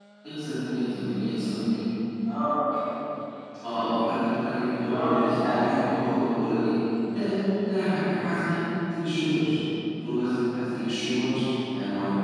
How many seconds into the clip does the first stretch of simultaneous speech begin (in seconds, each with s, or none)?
4.8 s